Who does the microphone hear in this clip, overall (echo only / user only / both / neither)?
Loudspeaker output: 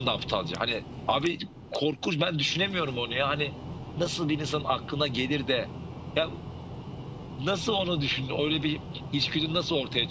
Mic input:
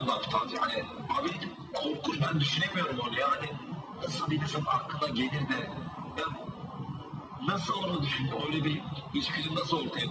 echo only